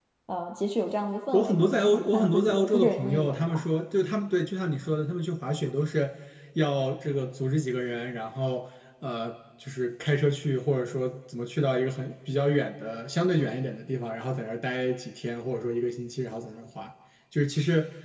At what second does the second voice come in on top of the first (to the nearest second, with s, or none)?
1 s